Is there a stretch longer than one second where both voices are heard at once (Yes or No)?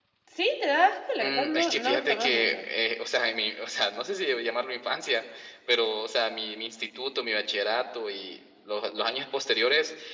Yes